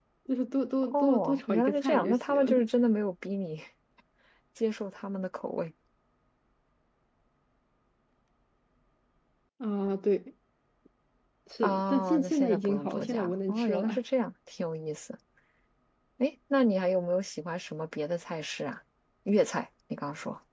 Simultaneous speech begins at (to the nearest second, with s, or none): 1 s